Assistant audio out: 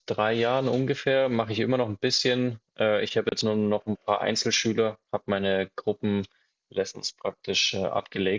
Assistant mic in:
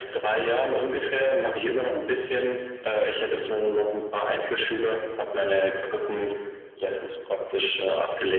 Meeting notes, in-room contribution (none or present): none